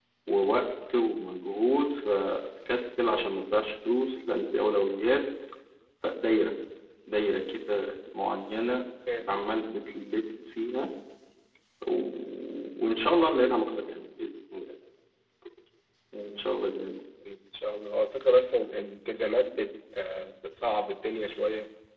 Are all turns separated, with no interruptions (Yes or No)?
Yes